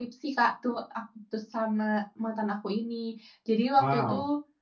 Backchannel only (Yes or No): Yes